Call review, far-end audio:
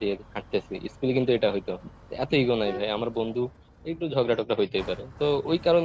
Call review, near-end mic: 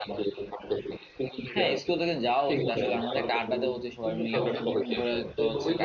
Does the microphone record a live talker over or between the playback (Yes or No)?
Yes